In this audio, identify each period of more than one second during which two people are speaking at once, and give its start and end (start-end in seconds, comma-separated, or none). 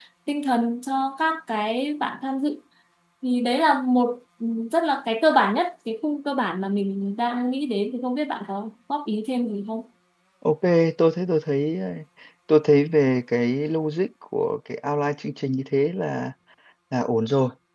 none